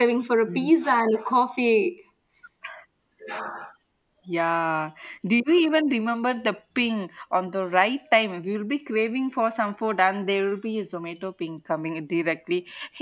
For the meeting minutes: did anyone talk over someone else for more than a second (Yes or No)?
No